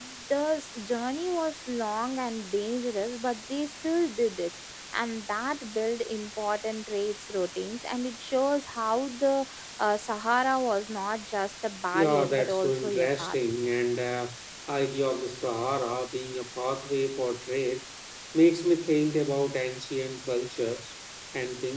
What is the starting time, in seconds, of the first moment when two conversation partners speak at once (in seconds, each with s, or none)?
11.9 s